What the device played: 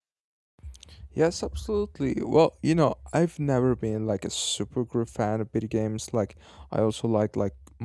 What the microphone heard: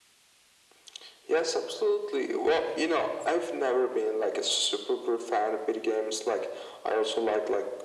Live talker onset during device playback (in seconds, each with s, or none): none